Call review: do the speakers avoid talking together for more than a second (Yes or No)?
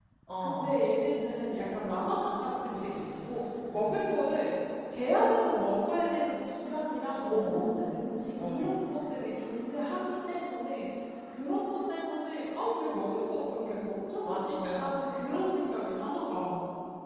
No